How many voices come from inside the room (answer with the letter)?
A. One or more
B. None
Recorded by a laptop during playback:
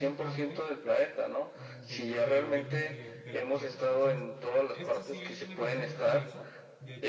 A